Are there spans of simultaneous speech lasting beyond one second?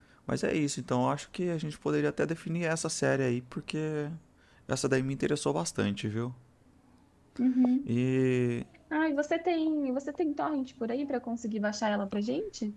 No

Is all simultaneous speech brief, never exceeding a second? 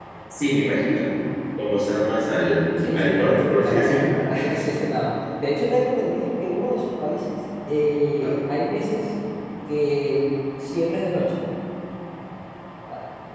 No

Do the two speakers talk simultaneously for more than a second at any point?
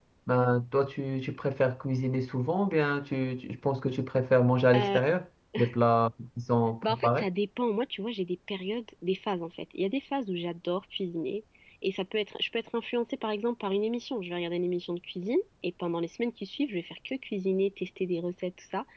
No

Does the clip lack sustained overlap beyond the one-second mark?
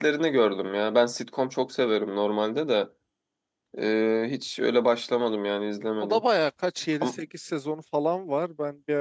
Yes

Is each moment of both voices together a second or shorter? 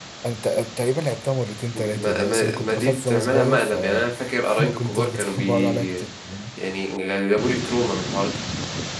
No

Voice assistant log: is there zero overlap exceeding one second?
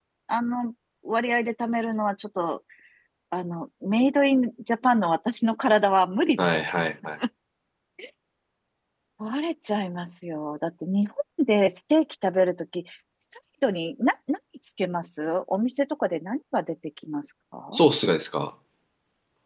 Yes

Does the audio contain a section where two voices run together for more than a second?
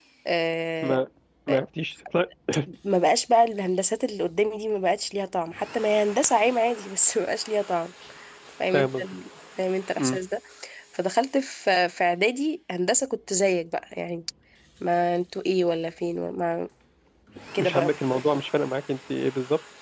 No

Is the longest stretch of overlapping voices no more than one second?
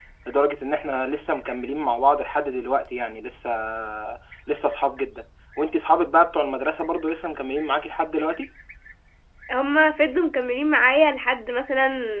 Yes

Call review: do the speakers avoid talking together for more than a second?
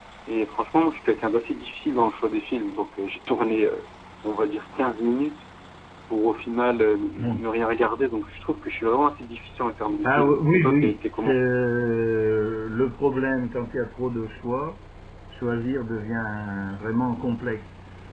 No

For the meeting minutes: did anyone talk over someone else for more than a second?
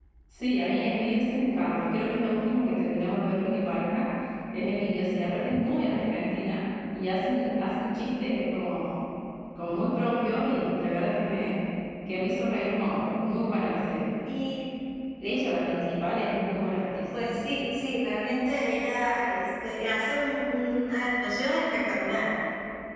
No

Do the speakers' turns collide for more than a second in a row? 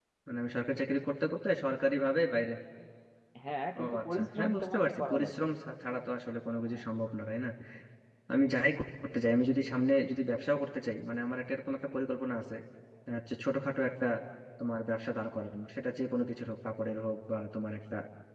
Yes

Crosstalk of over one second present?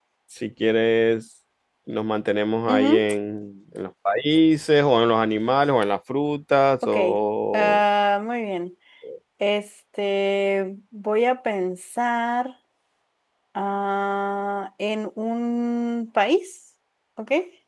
No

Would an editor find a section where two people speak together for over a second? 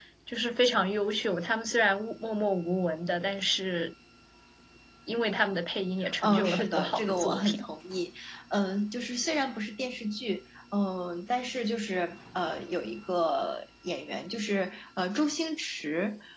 Yes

